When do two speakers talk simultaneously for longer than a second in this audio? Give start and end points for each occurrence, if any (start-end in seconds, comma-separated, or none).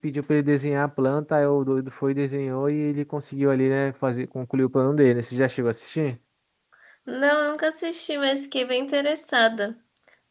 none